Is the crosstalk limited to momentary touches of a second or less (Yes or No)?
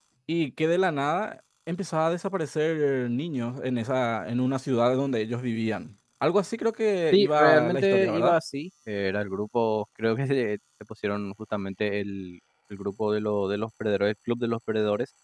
No